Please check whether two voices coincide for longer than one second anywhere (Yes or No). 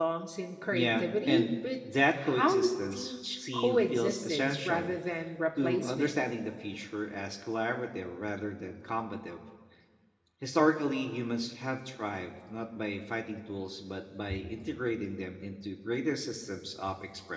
Yes